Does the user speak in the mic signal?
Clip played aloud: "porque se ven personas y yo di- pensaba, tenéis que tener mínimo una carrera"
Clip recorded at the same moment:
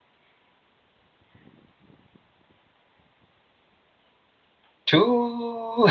Yes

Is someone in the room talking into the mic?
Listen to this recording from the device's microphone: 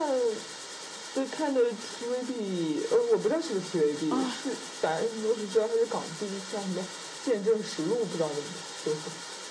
Yes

